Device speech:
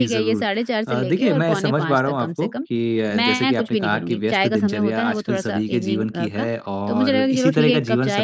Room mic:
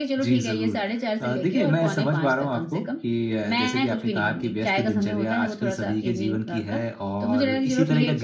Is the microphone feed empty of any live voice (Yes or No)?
Yes